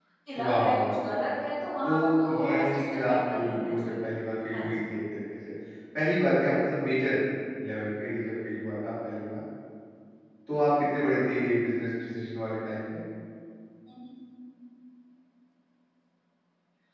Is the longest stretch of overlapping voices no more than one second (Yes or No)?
No